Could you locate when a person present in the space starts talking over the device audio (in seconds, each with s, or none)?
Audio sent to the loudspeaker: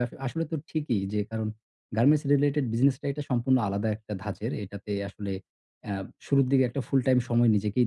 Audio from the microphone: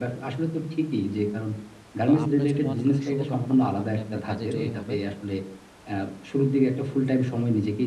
2.0 s